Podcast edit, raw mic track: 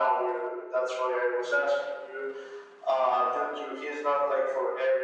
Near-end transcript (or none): none